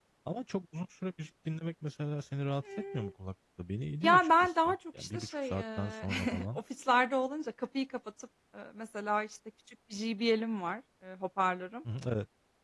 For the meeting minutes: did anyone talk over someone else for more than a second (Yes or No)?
Yes